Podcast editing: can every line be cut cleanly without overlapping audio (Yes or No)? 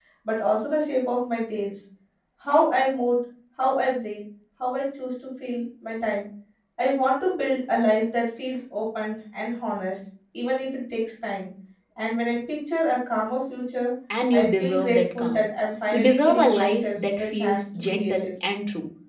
No